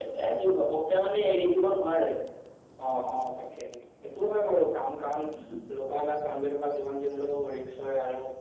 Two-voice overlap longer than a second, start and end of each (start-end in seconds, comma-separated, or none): none